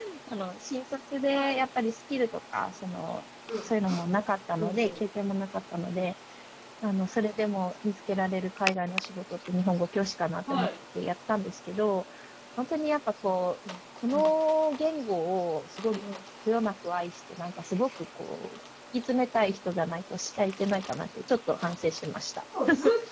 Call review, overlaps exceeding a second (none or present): none